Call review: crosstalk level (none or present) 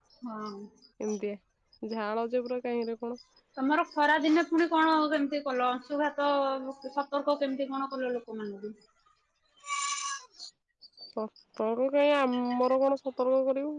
none